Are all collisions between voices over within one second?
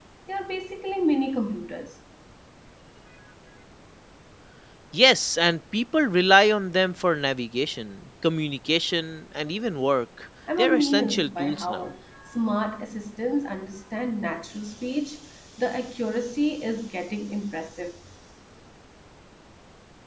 No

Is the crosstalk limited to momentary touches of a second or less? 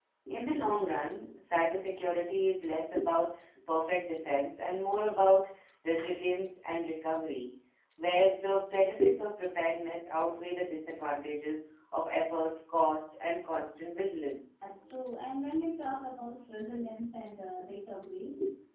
Yes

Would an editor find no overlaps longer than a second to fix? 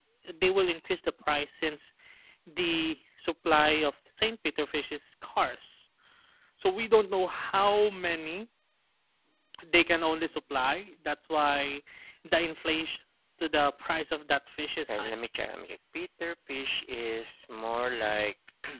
Yes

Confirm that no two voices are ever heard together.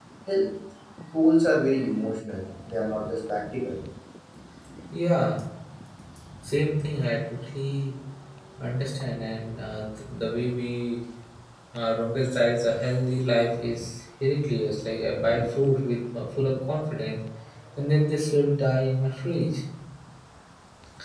Yes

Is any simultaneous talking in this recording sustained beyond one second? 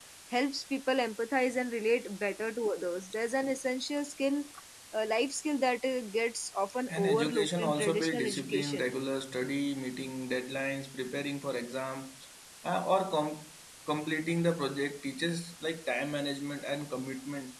Yes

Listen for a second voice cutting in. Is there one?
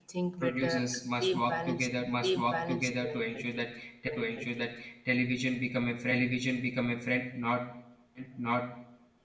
Yes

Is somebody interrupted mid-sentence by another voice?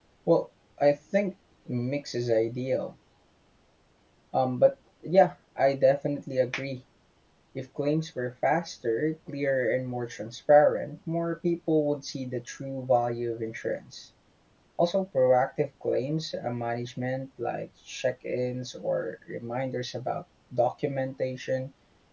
No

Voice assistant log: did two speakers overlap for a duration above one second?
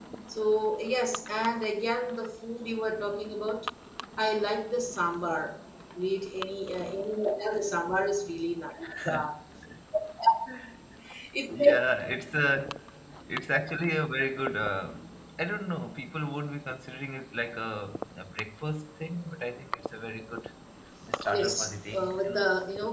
Yes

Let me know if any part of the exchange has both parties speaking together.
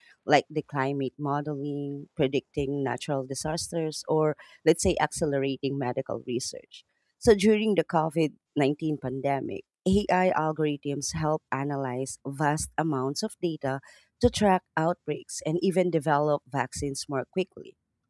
No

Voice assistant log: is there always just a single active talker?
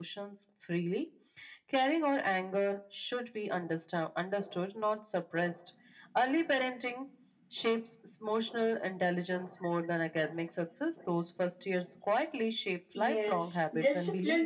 No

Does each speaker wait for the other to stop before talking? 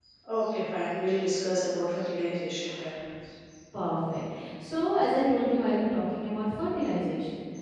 Yes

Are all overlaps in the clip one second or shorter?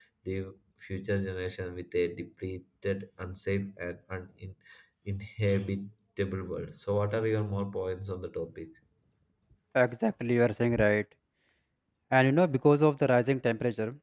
Yes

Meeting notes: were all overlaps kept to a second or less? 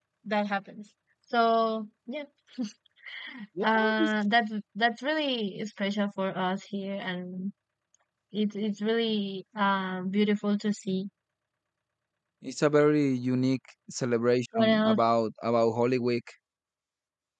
Yes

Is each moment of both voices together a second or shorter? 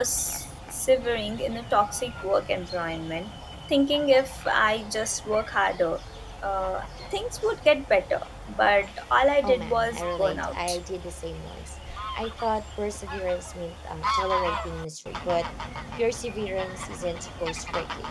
No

